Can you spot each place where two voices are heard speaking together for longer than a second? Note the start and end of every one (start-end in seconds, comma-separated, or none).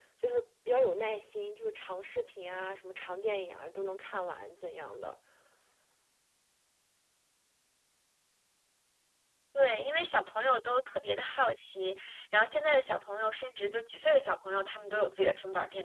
none